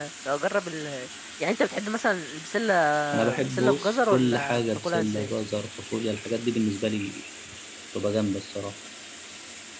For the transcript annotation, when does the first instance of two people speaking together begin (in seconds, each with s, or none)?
3.4 s